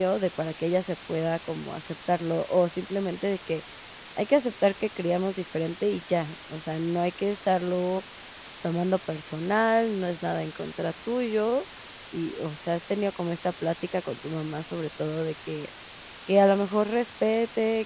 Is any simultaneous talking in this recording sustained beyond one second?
No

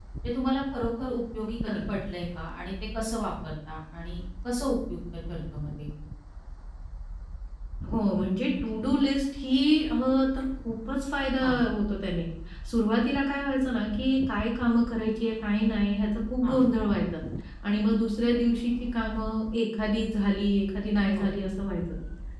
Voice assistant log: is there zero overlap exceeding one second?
Yes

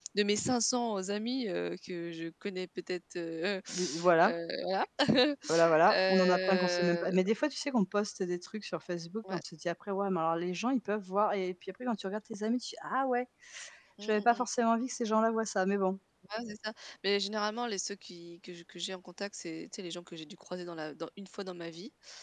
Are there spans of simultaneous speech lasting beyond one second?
Yes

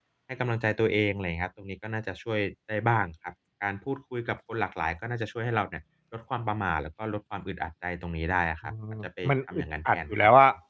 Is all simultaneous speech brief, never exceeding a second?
No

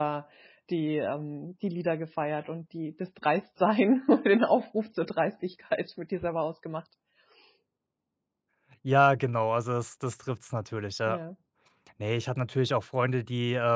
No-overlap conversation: Yes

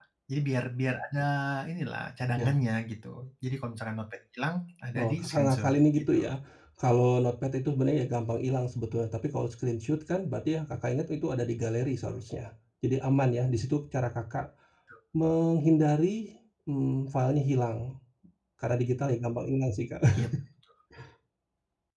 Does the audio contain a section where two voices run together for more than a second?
Yes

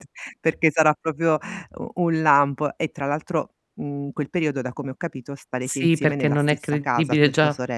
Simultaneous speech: Yes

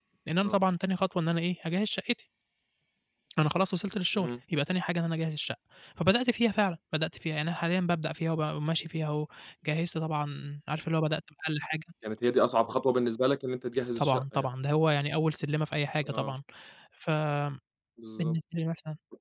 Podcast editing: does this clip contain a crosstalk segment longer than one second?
No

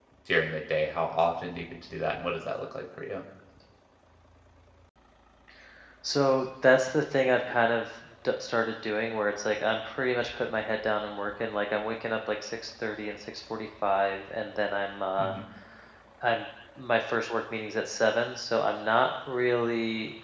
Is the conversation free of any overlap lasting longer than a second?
Yes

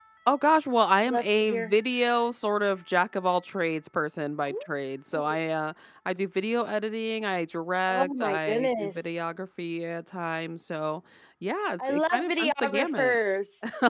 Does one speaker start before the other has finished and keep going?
Yes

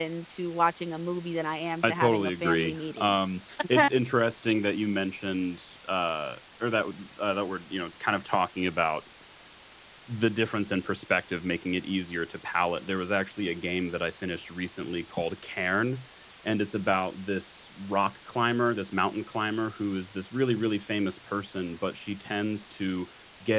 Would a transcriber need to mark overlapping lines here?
Yes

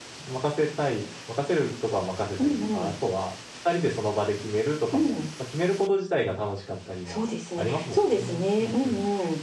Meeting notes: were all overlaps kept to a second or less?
No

